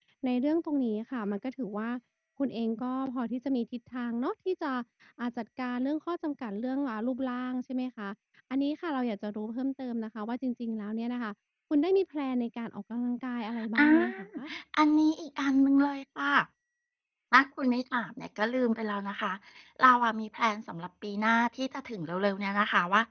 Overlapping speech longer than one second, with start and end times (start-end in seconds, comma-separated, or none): none